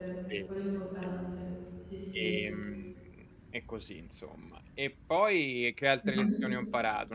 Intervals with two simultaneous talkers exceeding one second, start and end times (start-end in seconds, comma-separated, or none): none